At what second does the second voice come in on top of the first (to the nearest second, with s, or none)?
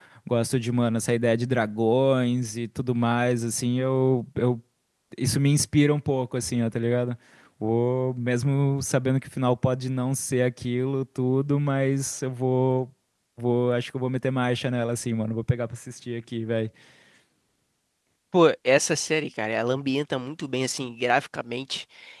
none